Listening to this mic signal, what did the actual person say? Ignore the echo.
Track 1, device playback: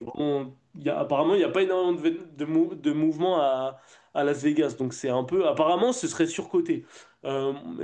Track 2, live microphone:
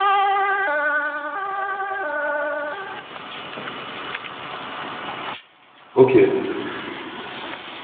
ok.

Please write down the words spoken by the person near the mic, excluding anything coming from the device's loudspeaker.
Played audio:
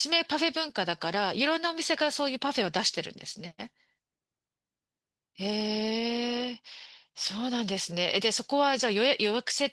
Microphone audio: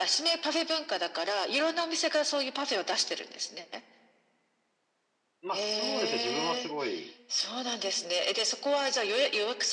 な。まあそうですね。自分はすごい、

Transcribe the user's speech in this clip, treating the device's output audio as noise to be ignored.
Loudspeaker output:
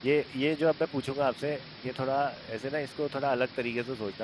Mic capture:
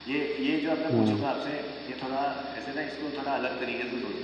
हाँ

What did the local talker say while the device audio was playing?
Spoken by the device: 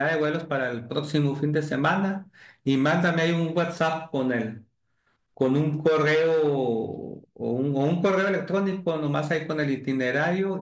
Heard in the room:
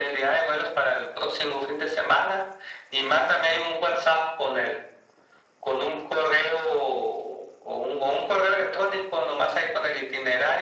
none

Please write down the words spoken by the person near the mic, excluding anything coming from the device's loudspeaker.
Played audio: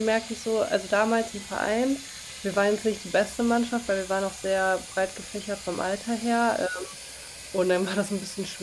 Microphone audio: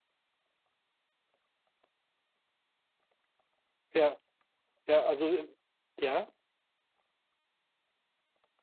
ja, ja, also, äh, ja,

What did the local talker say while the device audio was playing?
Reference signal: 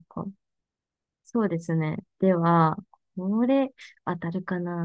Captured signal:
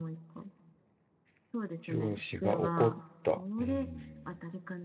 上司が怒った。うん。

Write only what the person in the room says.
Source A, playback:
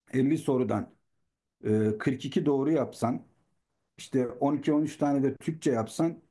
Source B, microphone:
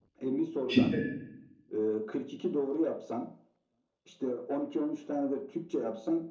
Şimdi

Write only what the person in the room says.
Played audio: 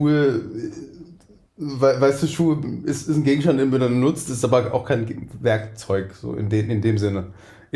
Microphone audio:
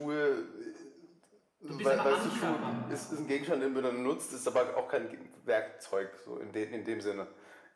Du bist aber am Körper.

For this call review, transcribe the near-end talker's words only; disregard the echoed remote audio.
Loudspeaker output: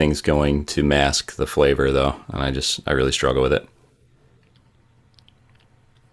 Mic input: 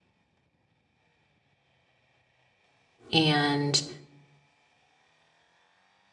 and

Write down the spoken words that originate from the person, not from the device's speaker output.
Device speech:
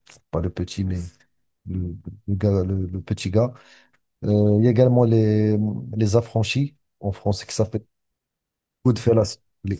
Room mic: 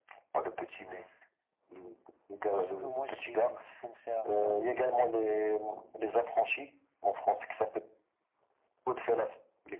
parce que moi j'ai, j'ai commencé à regarder des,

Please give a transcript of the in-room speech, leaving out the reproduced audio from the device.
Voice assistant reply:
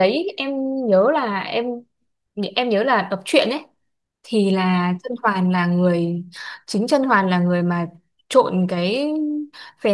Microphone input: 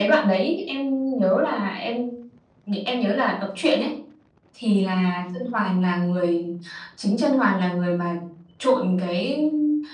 none

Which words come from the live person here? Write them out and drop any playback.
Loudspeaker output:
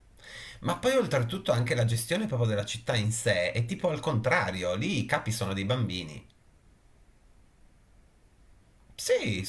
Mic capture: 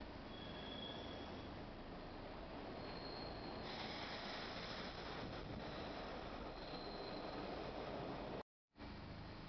none

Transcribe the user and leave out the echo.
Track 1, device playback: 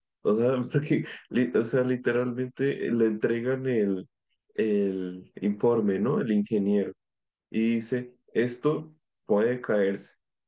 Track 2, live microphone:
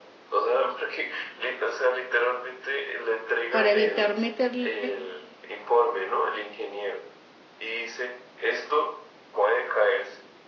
para evitar meterle

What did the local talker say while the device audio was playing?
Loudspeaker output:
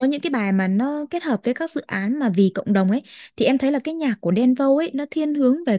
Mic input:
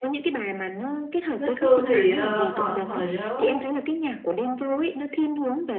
Bích Phương thì ờ, hồi hồi đó

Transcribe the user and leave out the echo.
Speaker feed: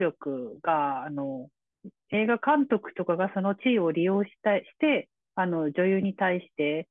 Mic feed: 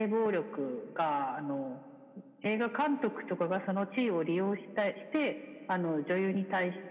none

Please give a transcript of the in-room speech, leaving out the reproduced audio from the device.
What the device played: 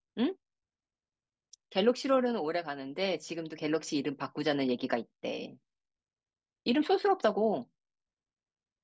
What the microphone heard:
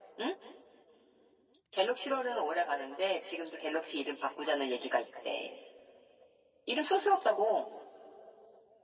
none

